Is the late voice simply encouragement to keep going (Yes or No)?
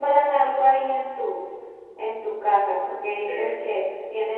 Yes